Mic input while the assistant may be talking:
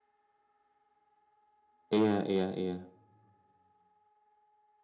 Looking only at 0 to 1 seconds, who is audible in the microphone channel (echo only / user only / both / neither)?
neither